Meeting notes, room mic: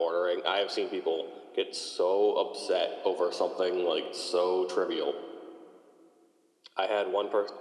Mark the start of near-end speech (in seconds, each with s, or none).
none